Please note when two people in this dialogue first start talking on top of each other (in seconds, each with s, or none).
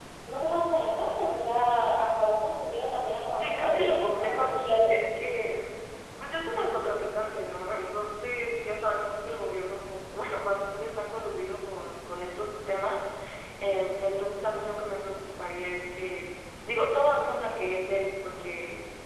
3.3 s